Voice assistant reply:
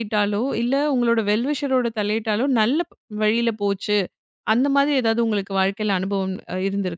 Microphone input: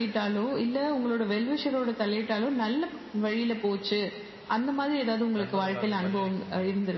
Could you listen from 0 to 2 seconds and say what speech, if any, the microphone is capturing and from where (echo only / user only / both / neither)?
echo only